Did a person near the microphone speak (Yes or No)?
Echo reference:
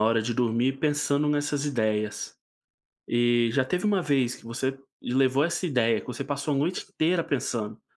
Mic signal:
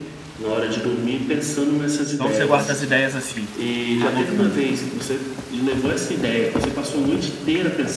Yes